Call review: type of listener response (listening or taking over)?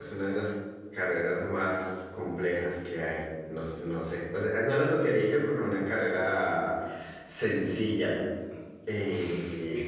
taking over